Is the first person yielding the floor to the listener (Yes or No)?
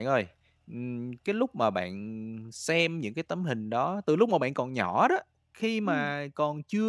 No